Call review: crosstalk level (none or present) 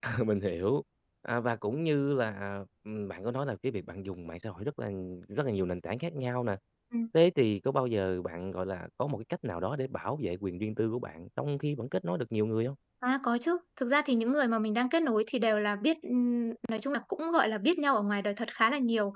none